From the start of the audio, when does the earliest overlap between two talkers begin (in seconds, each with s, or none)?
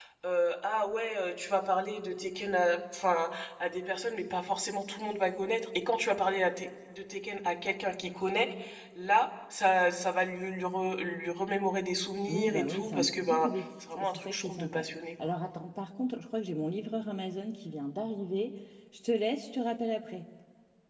12.3 s